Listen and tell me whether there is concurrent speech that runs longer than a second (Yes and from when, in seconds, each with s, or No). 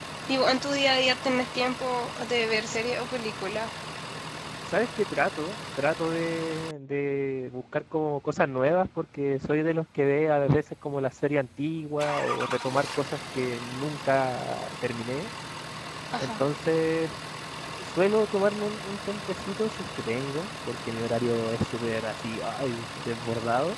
No